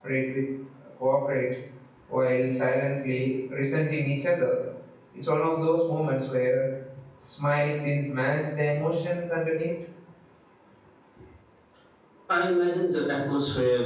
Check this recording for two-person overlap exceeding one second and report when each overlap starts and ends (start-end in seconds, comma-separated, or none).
none